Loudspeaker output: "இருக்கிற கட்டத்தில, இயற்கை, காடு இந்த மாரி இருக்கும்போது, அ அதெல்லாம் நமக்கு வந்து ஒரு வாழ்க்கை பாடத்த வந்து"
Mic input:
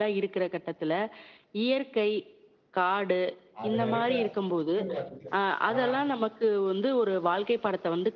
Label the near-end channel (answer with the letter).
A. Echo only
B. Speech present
B